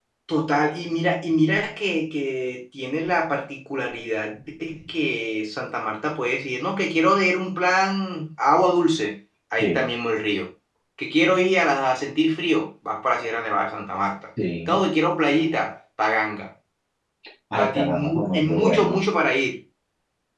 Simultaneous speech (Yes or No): Yes